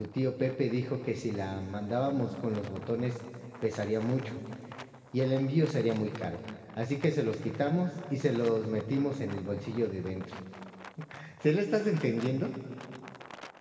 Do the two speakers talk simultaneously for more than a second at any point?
No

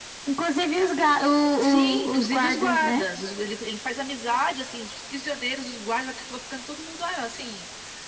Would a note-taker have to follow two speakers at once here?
Yes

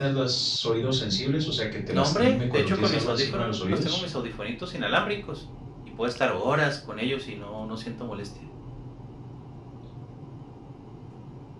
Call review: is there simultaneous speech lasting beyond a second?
Yes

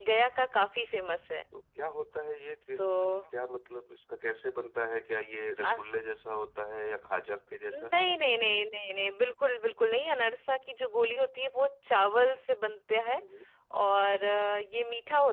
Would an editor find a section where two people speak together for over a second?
No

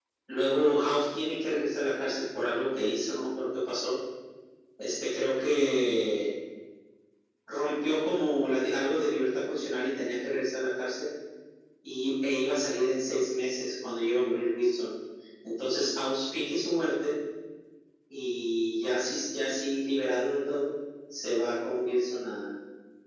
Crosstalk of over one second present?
No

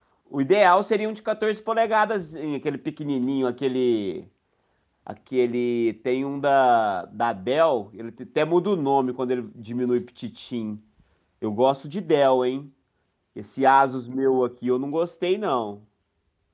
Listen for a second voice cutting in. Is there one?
No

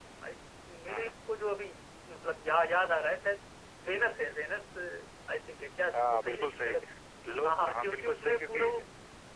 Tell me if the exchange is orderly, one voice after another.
No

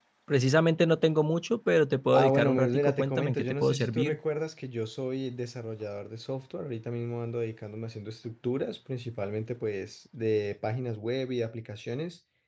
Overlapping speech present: Yes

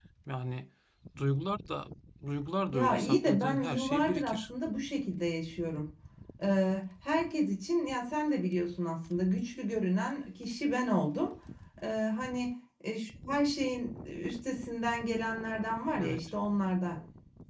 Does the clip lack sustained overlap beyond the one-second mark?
No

